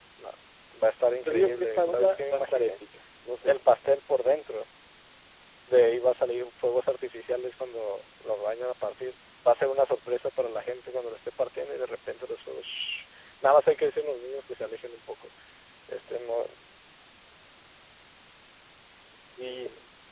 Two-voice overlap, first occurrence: 1.2 s

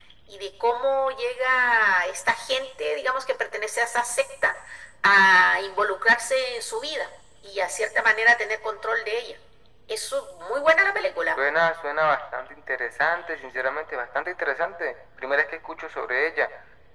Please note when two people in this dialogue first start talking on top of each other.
none

